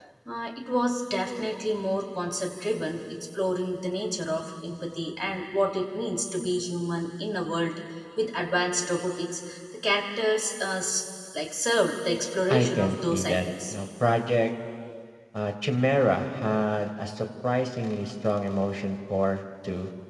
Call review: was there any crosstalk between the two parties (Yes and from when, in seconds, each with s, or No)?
Yes, from 12.5 s